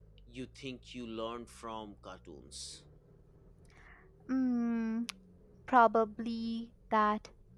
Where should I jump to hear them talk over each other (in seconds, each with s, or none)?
none